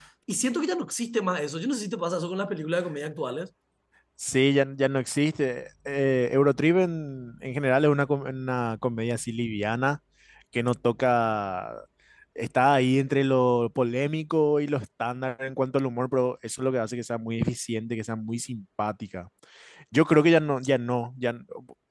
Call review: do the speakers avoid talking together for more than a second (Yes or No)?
Yes